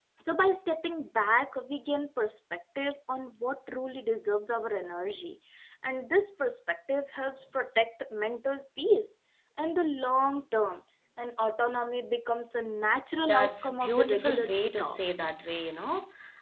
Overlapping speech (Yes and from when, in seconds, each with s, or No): Yes, from 13.1 s